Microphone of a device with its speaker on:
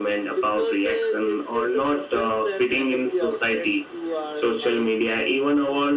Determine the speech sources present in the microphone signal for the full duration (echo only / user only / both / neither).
echo only